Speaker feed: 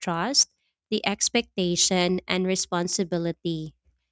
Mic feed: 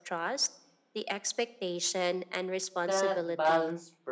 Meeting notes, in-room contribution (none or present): present